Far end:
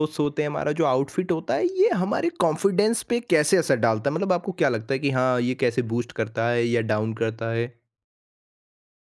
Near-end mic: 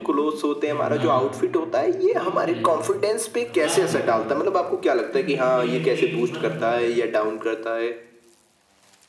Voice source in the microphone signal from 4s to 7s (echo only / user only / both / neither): both